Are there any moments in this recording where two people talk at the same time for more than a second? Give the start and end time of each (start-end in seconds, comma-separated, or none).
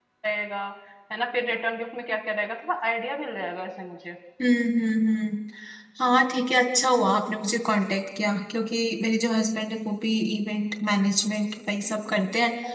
none